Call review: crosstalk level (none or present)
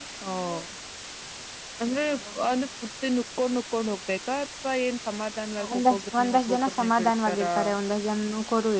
present